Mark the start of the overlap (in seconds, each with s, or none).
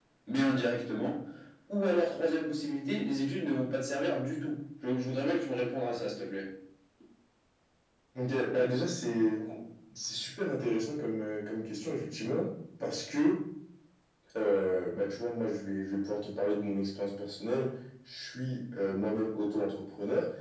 none